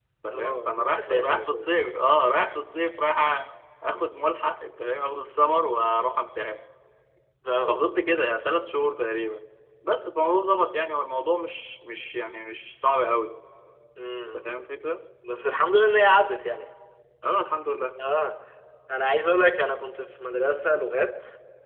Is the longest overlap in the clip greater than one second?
Yes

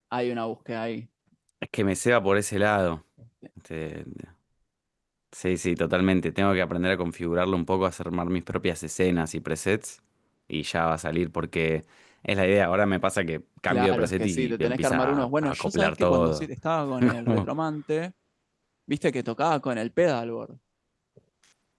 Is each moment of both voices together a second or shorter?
No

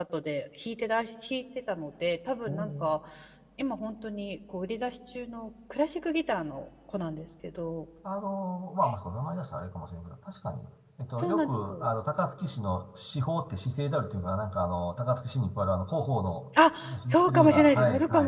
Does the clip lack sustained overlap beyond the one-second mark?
No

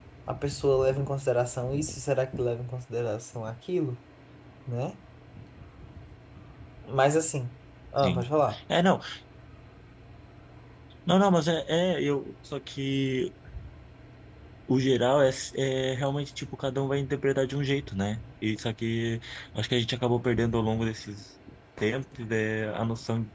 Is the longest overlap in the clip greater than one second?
No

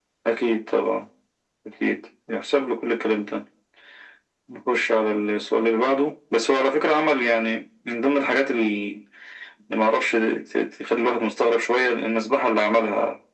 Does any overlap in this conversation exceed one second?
No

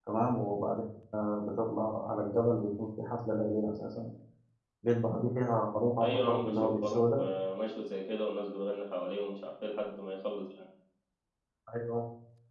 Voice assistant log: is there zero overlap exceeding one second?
No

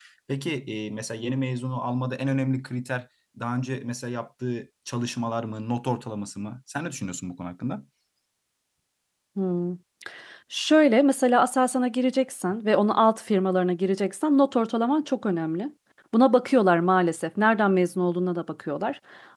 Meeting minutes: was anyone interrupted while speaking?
No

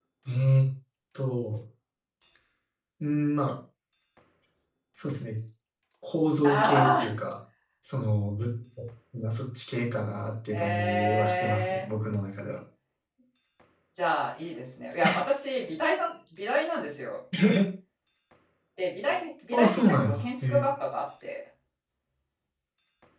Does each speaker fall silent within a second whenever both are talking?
No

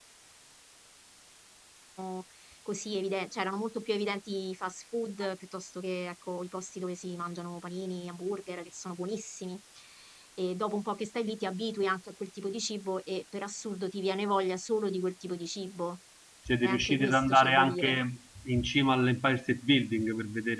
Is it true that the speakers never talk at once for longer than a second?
No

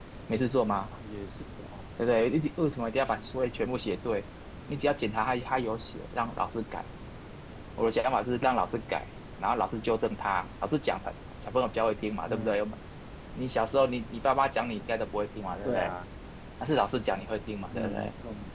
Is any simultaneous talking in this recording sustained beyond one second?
No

